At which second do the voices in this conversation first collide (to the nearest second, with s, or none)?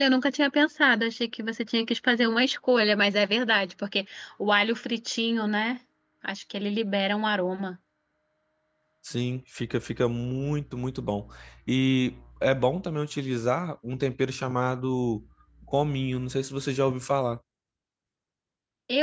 none